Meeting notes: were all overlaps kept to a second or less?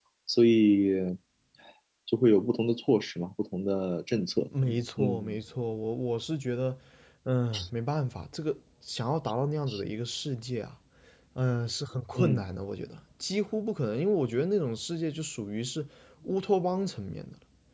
Yes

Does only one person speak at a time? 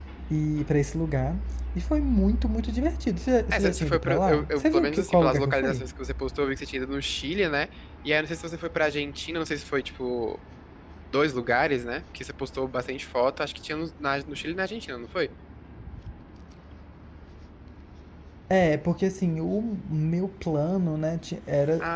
No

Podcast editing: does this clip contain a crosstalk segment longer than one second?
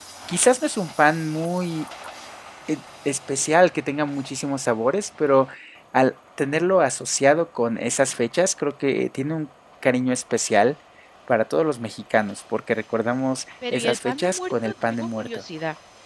Yes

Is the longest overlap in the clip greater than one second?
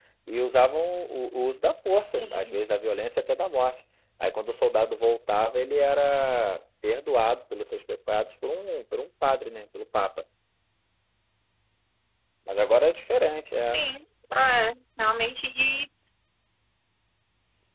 No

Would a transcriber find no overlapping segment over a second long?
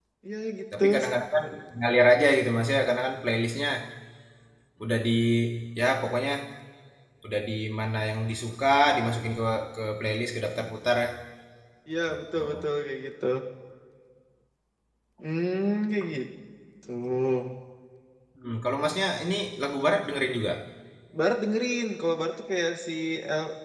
Yes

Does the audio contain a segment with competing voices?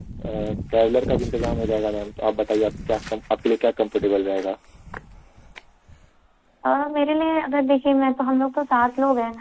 No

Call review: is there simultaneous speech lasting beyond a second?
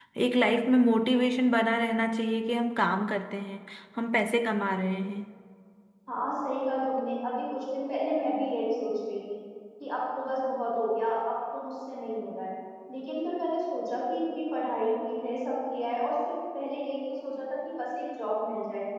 No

